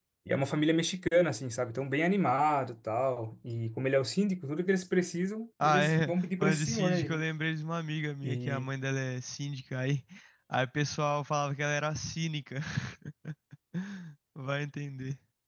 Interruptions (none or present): present